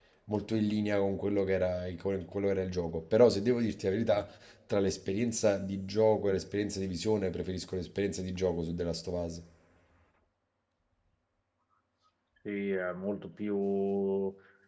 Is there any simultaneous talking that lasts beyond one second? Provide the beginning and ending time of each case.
none

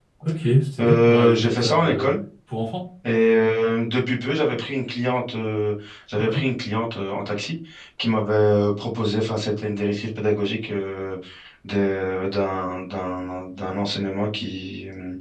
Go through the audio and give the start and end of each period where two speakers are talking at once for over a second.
0.8-2.2

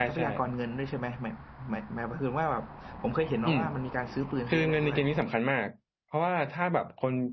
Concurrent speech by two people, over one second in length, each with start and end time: none

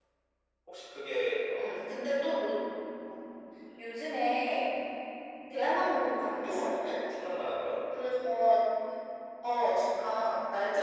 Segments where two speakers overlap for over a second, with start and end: none

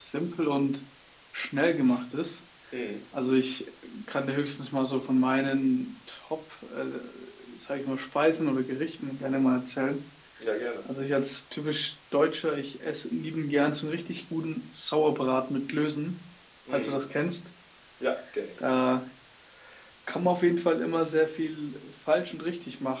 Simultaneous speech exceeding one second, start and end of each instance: none

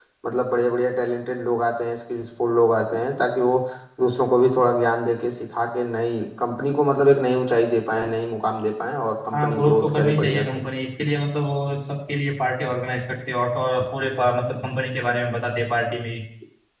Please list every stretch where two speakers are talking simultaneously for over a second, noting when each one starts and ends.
9.3-10.6

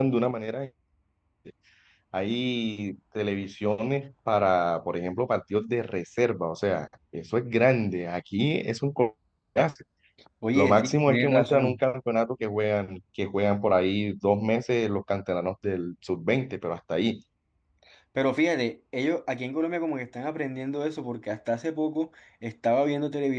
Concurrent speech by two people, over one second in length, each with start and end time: 10.5-11.8

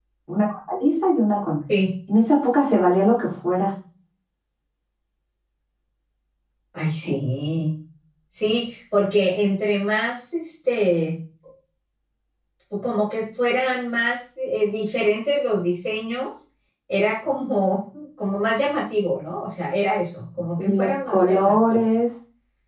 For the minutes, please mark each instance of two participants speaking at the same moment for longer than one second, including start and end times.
20.6-21.9

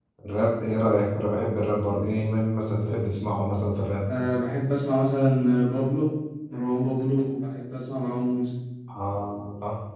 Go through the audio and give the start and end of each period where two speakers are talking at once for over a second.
none

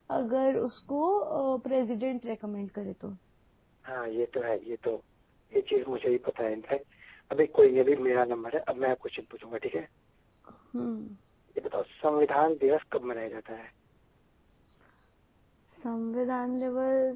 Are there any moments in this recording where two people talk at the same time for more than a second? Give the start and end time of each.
none

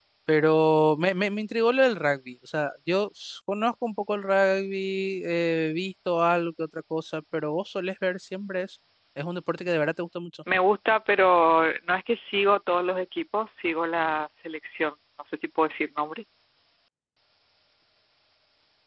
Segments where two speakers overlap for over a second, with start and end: none

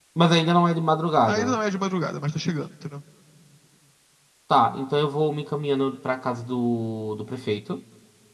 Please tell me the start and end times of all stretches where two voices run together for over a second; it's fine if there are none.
none

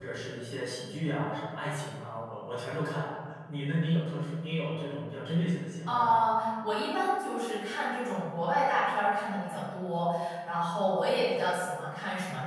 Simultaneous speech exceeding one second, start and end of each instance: none

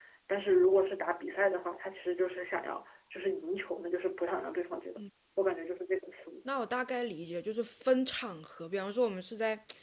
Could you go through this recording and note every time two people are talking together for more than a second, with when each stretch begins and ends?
none

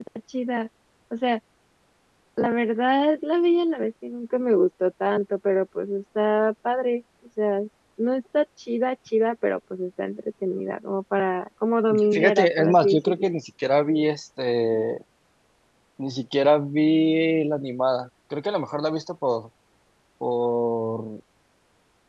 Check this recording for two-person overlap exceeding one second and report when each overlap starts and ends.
11.9-13.3

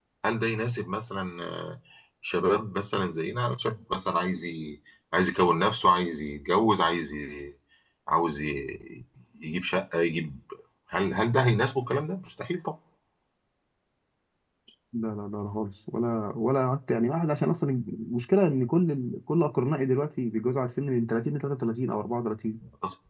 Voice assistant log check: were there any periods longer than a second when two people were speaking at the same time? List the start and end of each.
none

